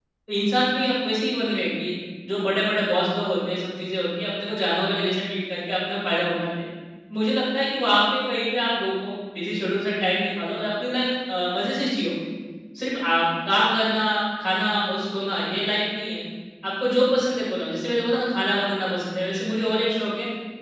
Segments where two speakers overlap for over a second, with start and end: none

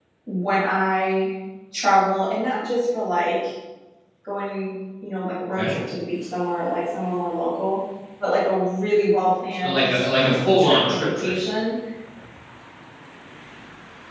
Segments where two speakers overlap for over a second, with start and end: 9.6-11.3

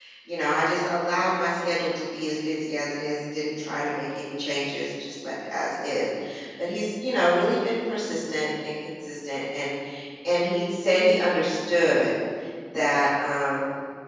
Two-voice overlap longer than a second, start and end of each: none

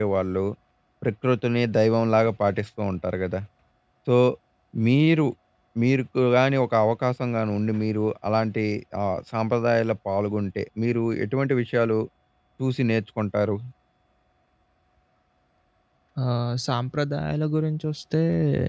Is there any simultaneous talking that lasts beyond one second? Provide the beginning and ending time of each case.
none

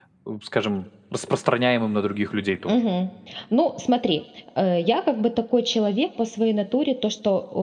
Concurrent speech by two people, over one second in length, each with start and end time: none

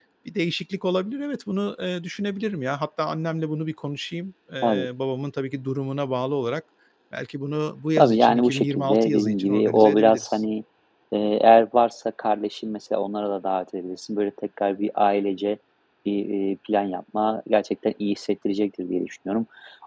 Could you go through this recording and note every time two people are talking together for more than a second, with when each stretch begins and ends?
8.0-10.4

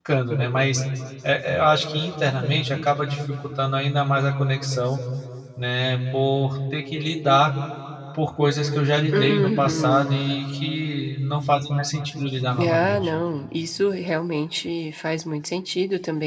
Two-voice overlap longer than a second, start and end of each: 9.1-10.4

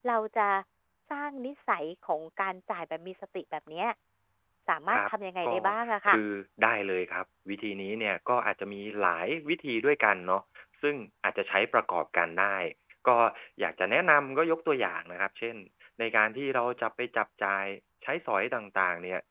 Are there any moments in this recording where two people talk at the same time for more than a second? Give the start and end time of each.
none

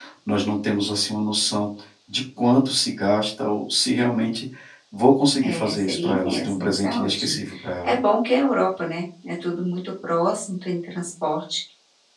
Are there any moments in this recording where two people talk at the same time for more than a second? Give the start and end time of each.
5.4-7.4

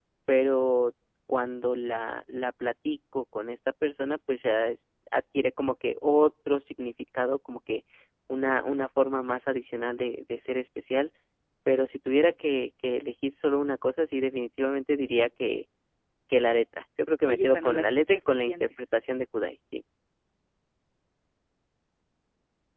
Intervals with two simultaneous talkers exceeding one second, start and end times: 17.2-18.6

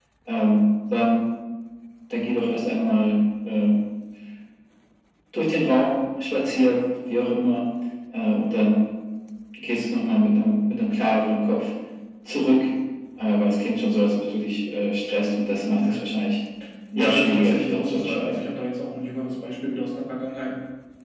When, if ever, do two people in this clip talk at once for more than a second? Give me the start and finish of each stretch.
17.0-18.4

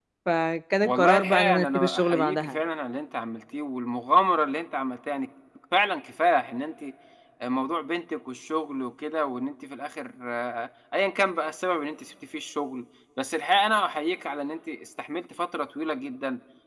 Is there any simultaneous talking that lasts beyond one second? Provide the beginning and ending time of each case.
0.8-2.6

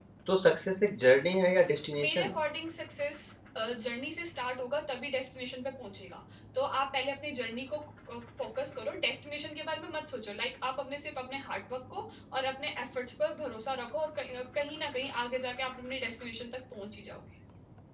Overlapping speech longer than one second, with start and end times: none

